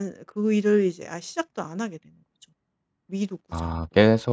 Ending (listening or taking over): taking over